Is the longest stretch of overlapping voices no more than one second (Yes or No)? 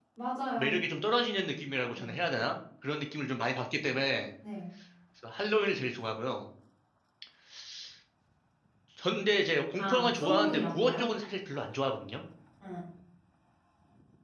No